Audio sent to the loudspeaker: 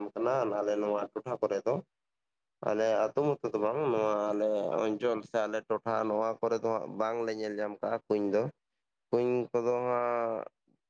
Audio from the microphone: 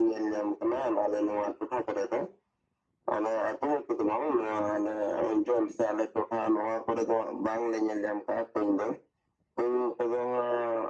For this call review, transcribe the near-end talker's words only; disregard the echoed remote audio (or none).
none